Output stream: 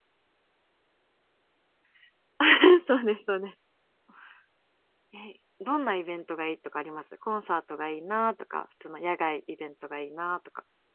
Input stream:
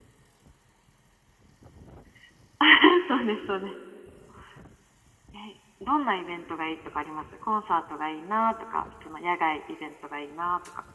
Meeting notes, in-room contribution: none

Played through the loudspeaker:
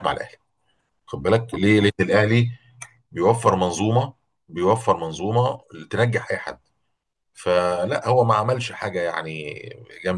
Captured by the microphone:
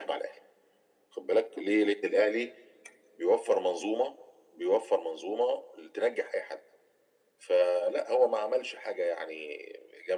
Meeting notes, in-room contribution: none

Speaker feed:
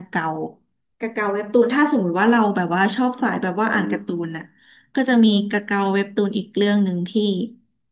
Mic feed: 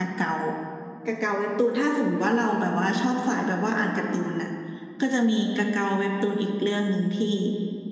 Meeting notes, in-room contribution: none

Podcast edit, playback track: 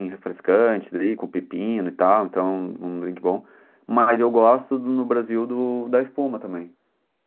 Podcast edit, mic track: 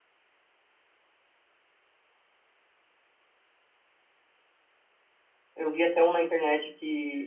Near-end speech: present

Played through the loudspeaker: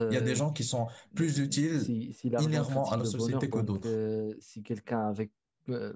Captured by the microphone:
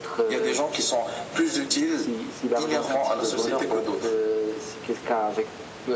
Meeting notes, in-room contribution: none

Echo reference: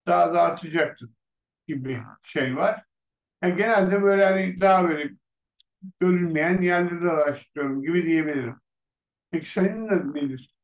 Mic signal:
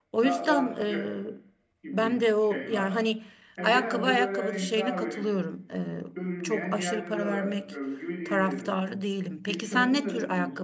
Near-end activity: present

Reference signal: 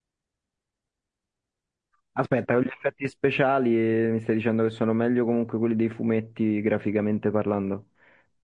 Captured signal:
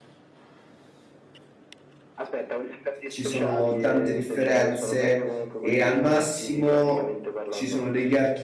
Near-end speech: present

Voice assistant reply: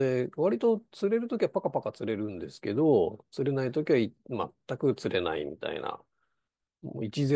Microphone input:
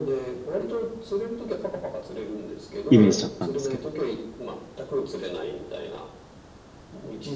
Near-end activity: present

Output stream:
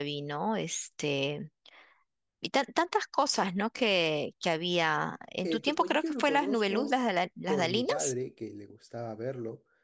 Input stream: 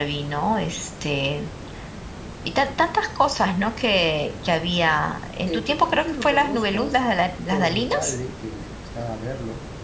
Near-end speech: none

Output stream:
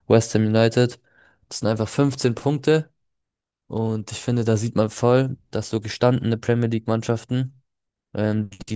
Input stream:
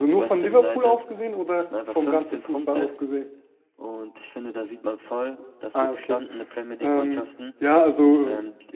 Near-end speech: present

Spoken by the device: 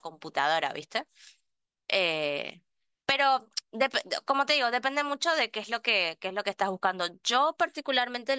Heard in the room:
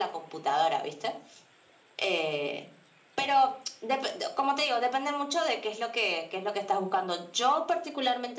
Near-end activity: none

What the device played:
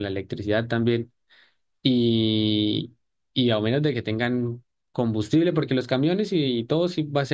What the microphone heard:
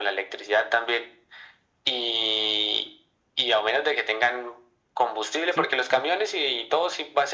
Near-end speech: present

